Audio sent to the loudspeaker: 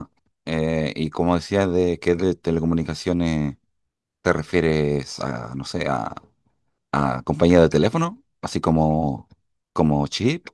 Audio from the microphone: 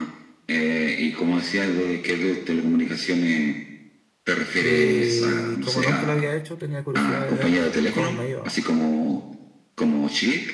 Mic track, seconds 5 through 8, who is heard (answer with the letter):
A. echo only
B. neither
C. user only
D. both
D